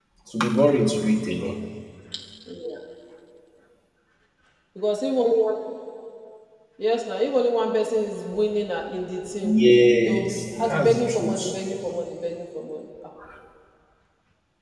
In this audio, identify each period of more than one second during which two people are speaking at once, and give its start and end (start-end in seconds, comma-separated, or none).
10.1-11.4